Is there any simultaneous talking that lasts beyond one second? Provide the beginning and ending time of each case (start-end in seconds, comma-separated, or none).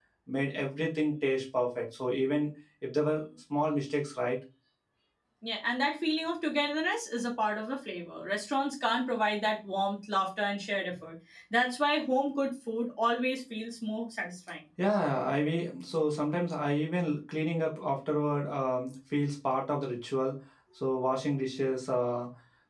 none